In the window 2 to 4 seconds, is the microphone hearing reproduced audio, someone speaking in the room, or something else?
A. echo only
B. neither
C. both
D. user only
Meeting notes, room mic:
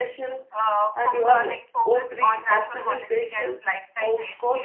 C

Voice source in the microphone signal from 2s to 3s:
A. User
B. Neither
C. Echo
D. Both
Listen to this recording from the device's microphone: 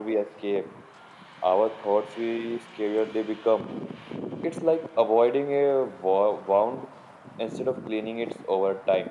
C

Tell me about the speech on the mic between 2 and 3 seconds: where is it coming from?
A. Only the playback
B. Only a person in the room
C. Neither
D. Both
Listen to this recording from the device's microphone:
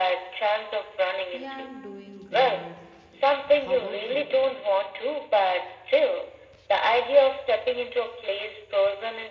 D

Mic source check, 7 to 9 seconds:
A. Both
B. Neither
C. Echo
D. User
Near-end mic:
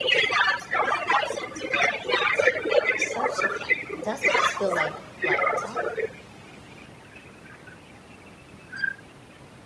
B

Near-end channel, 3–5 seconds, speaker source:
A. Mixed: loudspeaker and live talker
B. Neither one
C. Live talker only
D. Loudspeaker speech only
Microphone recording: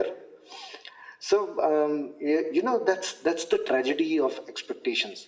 D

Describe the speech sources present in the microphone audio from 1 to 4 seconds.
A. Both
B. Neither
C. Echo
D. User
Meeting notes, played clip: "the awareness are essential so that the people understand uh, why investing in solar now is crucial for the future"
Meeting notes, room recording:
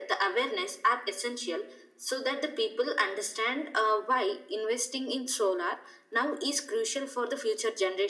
C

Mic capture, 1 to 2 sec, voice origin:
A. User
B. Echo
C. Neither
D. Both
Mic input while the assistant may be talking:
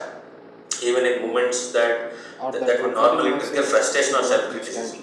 B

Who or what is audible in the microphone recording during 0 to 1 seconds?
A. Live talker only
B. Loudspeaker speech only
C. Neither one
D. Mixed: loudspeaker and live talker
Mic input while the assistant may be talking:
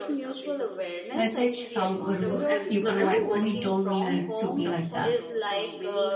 B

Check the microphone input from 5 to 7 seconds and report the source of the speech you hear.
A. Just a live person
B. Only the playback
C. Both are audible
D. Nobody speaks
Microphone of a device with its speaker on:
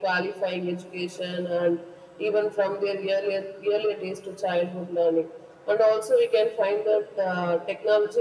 B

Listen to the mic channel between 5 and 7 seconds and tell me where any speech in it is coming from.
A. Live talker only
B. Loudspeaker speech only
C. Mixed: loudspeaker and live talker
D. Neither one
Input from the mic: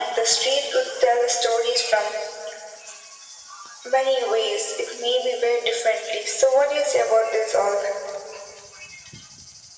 B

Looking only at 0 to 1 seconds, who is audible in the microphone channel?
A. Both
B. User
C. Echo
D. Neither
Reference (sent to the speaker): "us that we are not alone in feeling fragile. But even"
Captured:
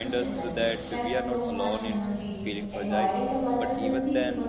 A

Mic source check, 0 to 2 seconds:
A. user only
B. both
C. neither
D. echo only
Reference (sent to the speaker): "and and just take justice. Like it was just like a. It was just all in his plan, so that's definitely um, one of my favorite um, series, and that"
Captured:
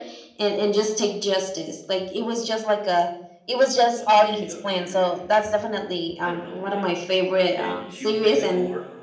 D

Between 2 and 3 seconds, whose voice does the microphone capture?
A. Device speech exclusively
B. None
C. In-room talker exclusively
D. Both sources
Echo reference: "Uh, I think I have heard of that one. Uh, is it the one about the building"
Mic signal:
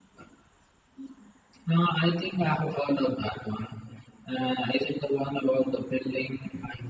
A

